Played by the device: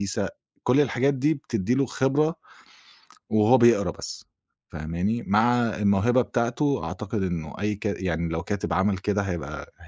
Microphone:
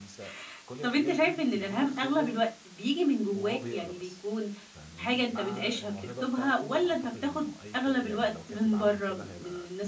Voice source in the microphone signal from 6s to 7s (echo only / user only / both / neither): both